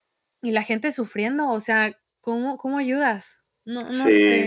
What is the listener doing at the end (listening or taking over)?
taking over